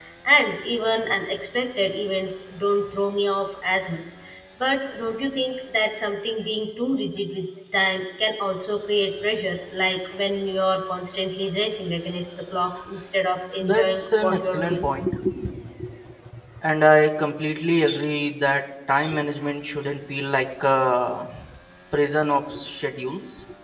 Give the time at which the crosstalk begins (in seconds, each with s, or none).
13.6 s